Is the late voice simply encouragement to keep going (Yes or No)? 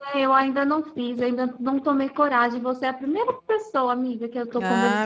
No